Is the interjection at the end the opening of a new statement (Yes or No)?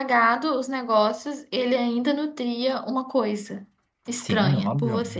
Yes